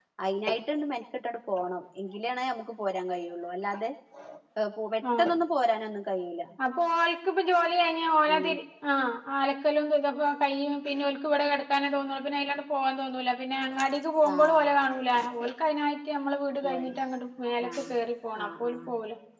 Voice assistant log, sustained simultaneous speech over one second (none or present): none